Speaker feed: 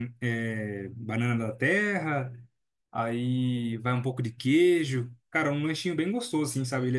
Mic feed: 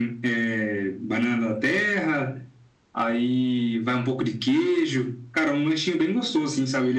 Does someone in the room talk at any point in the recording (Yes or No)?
No